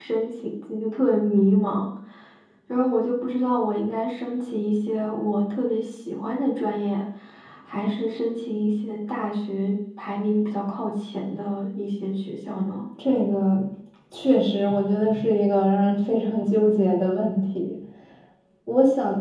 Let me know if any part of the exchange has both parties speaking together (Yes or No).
No